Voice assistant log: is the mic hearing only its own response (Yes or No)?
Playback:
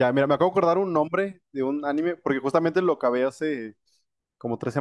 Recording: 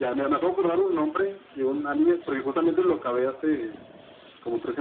Yes